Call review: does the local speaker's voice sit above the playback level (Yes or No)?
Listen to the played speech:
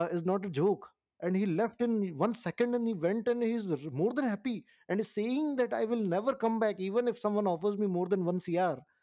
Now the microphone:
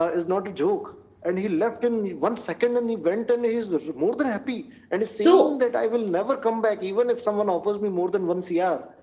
Yes